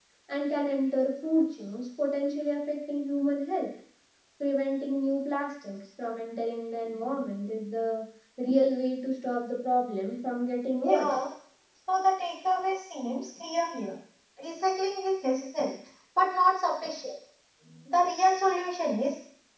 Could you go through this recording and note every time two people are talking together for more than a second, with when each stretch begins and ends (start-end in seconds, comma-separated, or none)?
none